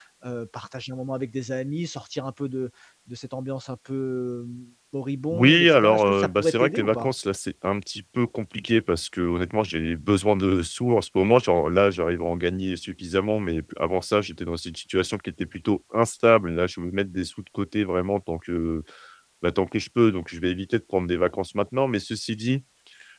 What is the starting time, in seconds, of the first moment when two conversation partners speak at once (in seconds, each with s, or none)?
5.3 s